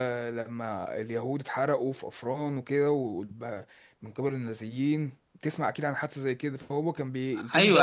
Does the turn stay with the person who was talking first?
No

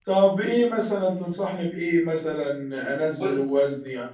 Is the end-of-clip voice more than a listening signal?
No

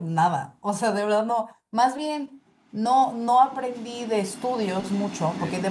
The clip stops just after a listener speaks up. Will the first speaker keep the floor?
Yes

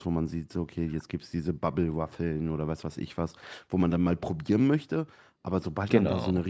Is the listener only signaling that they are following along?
Yes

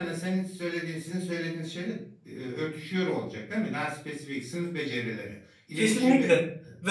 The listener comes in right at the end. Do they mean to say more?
Yes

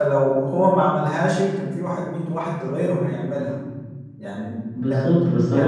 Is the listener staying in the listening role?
No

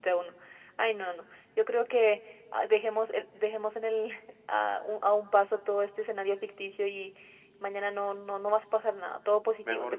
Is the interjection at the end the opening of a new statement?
Yes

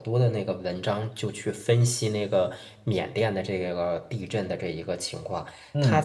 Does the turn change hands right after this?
No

